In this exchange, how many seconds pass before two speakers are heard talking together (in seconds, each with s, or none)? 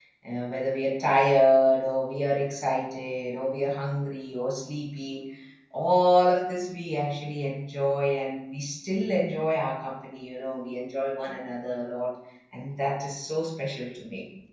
none